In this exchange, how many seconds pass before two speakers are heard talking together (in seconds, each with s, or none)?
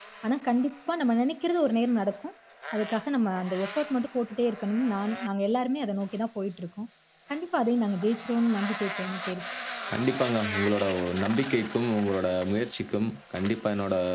none